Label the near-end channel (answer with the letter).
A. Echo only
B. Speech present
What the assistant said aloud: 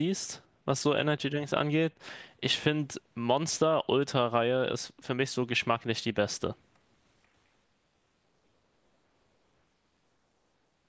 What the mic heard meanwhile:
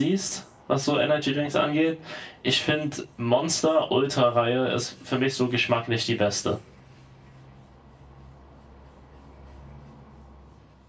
A